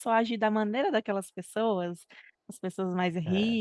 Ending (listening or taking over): listening